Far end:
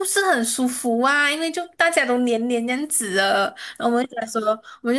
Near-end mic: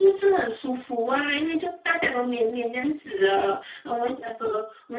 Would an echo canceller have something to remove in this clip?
Yes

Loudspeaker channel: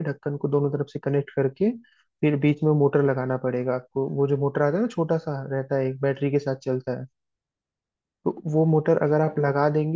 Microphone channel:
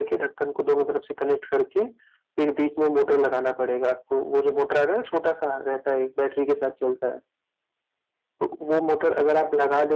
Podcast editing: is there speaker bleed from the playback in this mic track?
Yes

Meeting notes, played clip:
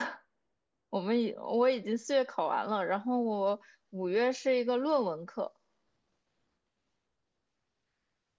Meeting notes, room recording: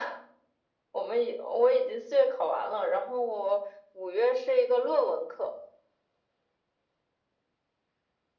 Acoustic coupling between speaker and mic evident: Yes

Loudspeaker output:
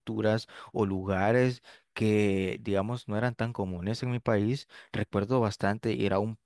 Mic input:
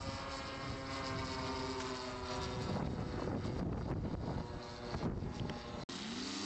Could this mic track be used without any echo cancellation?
Yes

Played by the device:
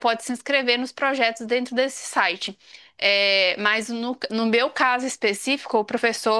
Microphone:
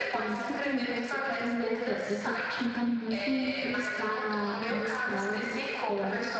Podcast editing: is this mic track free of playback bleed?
No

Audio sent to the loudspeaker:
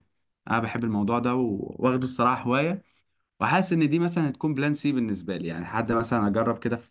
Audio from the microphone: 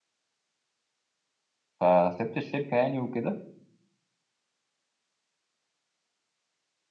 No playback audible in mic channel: Yes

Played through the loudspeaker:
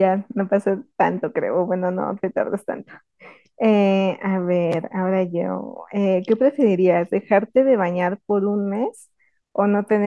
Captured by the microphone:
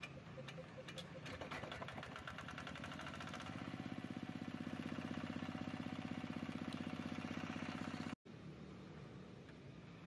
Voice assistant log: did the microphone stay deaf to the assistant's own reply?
Yes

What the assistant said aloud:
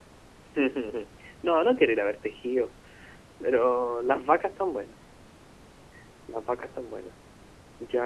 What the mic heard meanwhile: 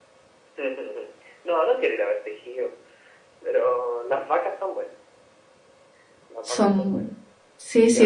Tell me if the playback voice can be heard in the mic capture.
Yes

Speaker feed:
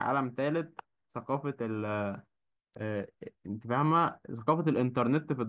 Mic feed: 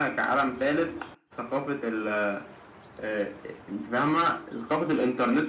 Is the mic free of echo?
No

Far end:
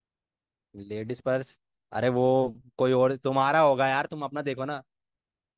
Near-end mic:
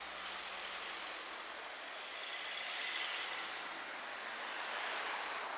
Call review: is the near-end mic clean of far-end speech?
Yes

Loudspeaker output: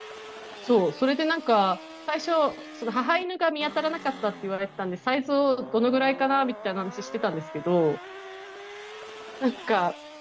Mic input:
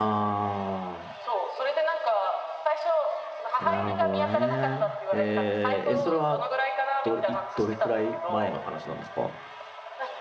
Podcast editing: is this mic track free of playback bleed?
No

